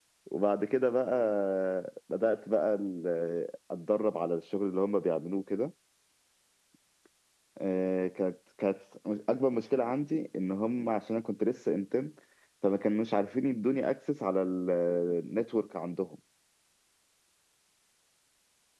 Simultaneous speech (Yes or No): No